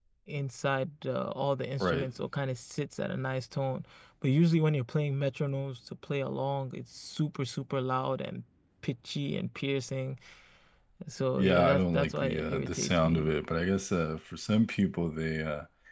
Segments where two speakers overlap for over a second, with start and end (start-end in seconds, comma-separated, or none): 11.4-13.3